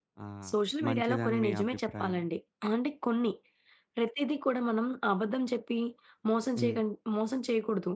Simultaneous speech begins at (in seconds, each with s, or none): 0.8 s